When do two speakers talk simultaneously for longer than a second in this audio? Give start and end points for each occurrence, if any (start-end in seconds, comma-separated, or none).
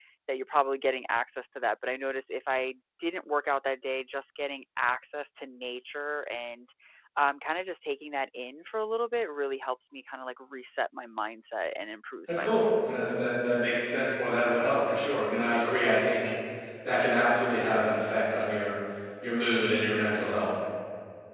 none